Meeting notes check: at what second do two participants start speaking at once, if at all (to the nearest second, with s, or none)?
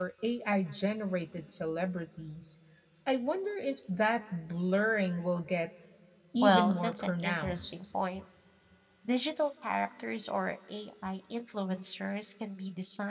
6 s